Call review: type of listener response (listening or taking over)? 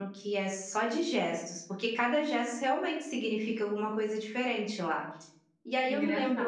listening